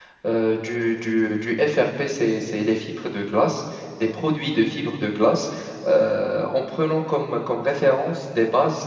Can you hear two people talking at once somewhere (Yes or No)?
No